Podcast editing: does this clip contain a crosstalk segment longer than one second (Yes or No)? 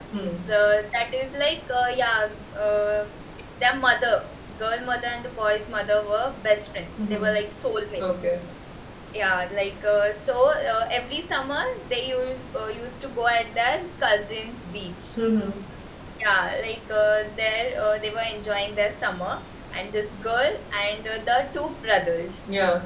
No